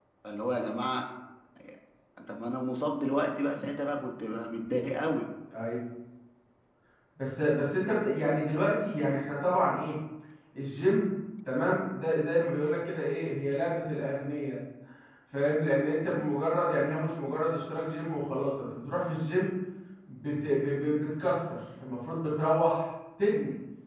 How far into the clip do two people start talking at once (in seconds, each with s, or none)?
none